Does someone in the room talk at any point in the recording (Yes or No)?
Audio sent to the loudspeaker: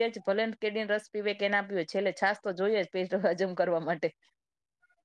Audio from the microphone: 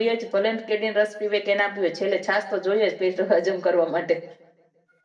No